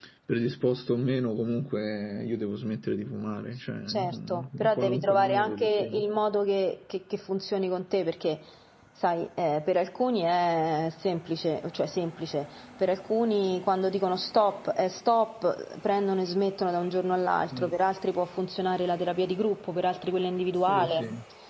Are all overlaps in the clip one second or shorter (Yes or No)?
No